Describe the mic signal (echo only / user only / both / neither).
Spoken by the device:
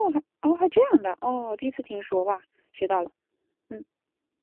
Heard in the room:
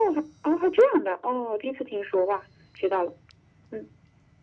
echo only